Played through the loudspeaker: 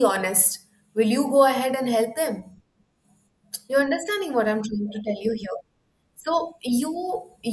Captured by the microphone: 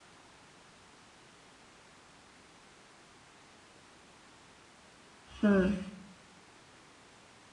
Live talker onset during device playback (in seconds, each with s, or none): 5.4 s